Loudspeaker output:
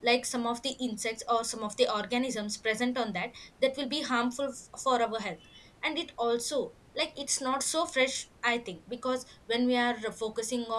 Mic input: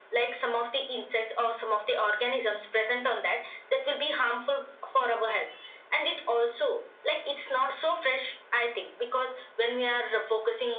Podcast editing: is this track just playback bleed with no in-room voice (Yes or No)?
Yes